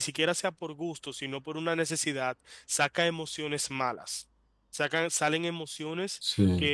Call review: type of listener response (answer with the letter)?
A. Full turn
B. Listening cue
B